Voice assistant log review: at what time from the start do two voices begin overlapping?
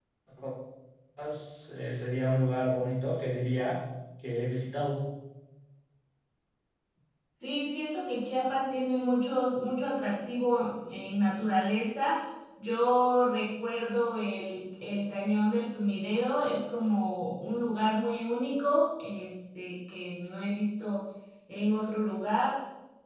none

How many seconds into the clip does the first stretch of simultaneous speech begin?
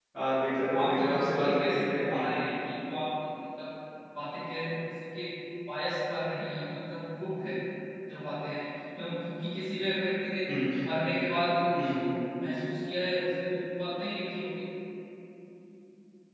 0.7 s

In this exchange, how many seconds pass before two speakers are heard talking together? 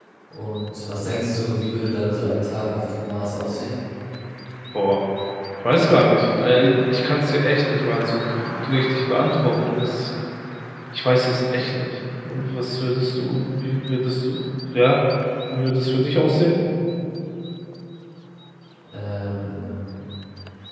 none

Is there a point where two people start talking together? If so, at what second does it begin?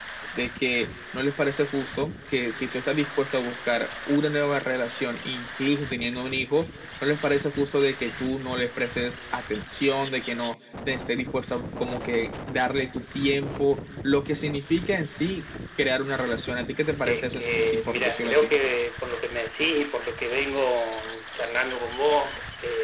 17.1 s

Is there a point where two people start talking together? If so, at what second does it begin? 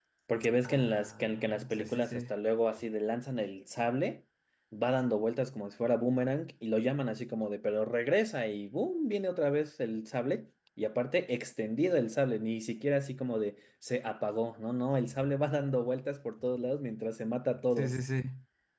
0.6 s

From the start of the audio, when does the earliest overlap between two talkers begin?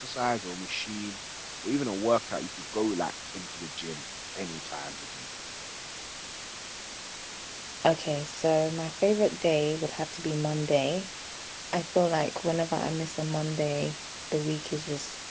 none

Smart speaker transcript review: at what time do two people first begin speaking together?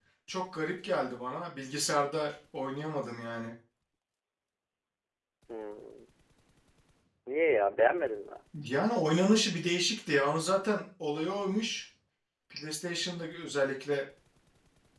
none

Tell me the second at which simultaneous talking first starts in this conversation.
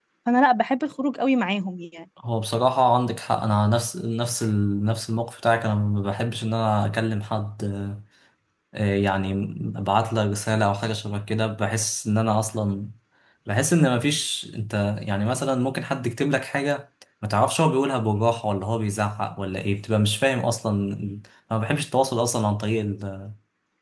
none

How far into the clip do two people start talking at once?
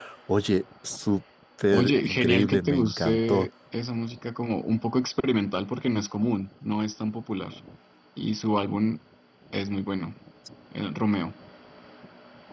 1.7 s

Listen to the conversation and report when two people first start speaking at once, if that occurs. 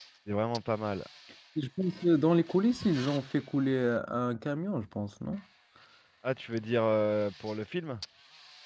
none

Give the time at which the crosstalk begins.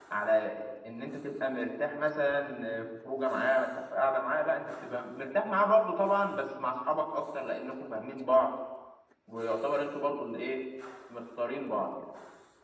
none

